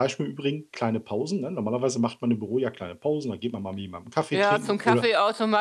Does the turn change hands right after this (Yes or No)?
Yes